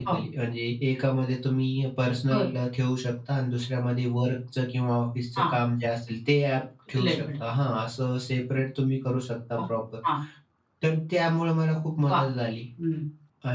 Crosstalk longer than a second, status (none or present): none